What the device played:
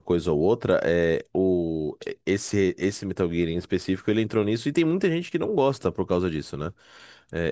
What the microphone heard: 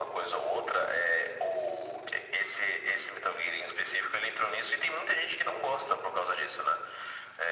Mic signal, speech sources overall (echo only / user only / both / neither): echo only